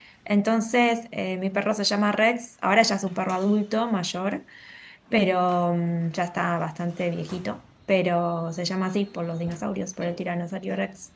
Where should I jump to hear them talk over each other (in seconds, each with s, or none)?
none